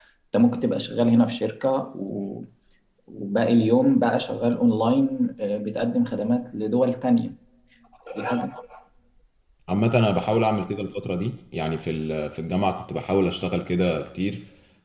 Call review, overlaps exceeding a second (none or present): none